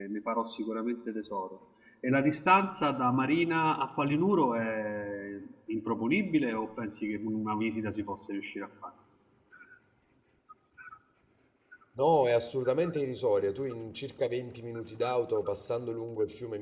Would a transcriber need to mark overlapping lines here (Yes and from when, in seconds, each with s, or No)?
No